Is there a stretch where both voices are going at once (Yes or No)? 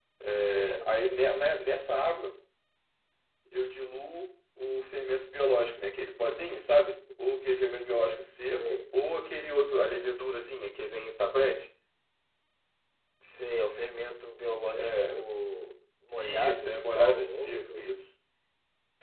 Yes